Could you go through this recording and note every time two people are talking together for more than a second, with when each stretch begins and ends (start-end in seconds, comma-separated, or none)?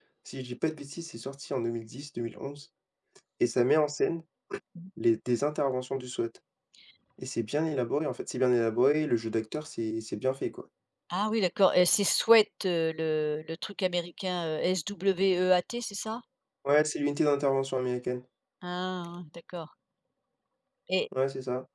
none